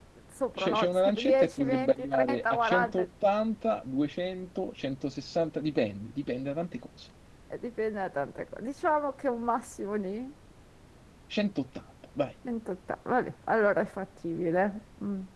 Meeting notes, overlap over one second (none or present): present